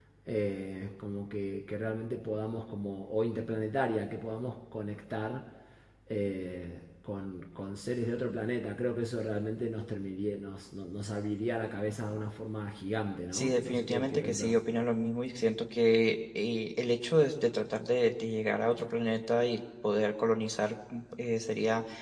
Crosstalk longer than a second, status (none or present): present